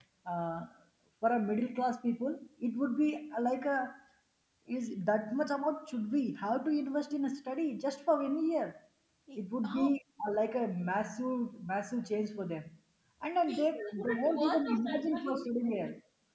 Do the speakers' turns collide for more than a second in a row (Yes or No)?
Yes